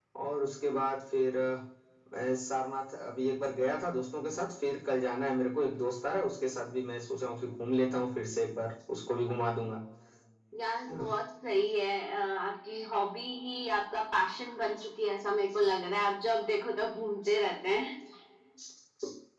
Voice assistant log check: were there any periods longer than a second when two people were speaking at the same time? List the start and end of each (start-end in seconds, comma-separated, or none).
none